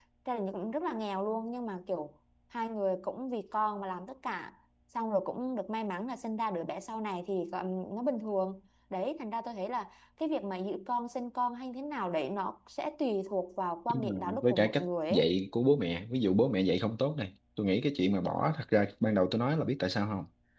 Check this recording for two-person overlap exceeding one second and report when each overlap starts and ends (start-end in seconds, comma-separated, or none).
13.9-15.3